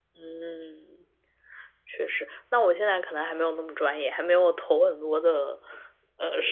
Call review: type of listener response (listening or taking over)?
listening